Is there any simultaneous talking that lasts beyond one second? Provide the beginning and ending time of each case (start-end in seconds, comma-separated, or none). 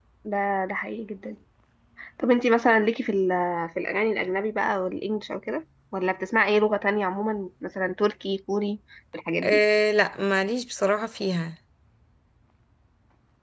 none